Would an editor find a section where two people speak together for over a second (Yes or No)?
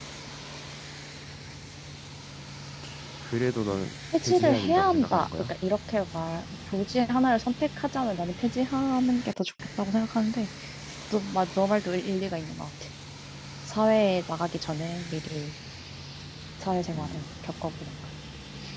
Yes